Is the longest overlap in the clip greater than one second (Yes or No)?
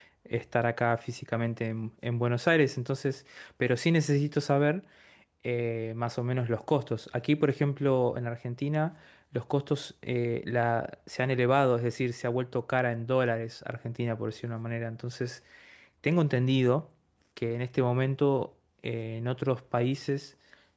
No